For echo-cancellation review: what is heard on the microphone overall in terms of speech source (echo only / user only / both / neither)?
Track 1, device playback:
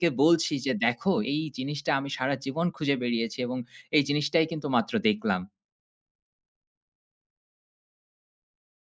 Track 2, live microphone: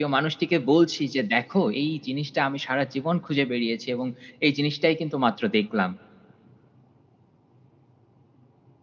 echo only